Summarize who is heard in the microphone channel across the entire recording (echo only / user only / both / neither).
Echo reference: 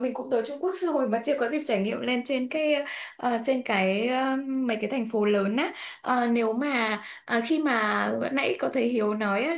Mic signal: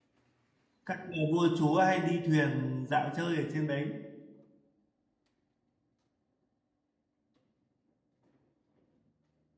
user only